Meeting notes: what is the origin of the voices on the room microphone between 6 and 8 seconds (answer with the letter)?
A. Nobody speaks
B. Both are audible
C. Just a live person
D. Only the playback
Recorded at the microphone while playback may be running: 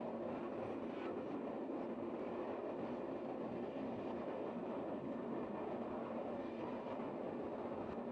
A